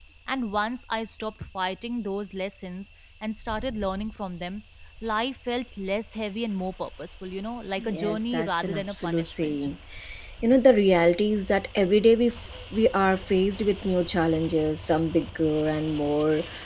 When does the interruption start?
7.8 s

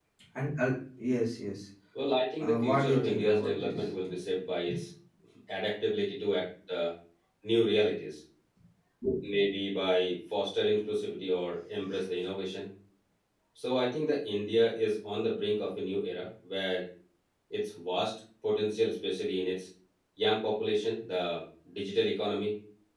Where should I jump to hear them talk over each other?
2.4 s

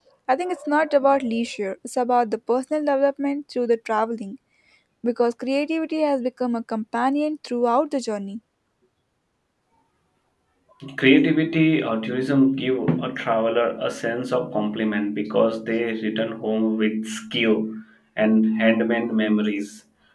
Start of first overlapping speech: none

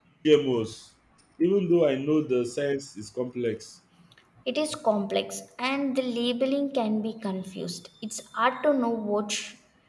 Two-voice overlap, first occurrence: none

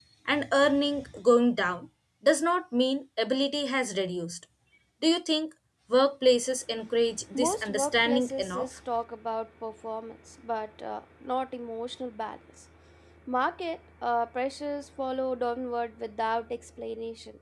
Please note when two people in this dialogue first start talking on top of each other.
7.3 s

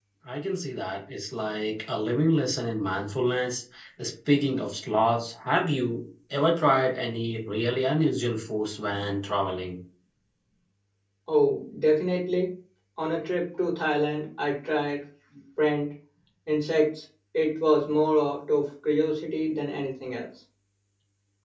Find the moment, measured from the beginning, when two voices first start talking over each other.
none

